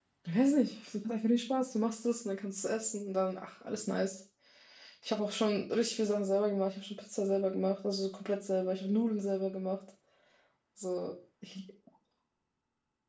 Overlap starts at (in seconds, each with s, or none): none